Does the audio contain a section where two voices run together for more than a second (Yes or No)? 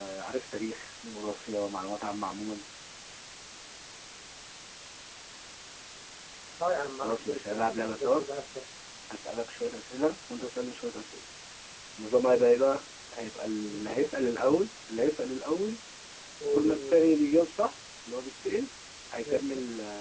Yes